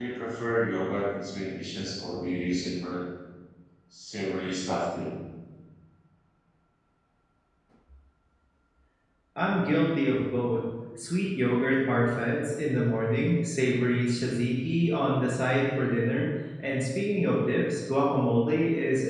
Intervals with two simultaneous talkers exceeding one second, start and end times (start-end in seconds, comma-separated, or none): none